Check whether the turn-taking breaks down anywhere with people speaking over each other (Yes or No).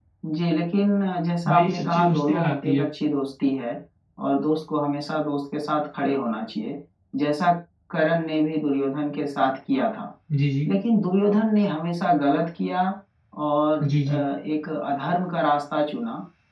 Yes